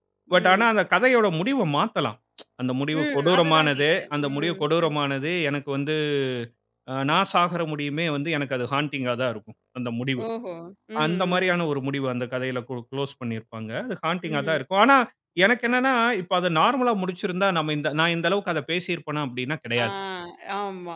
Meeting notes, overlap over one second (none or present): present